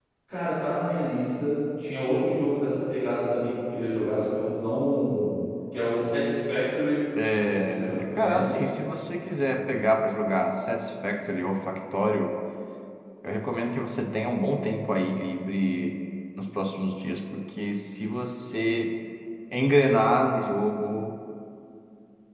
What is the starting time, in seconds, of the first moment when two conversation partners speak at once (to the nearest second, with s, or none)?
7 s